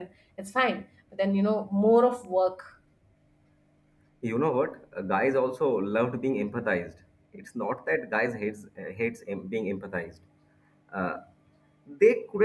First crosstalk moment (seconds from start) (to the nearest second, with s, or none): none